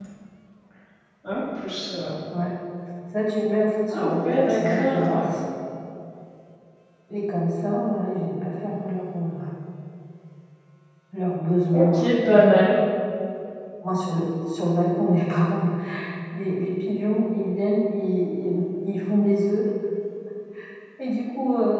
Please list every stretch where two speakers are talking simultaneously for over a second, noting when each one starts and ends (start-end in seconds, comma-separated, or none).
3.9-5.2